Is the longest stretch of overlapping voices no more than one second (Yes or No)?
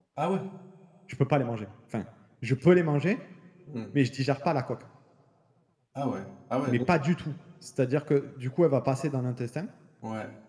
Yes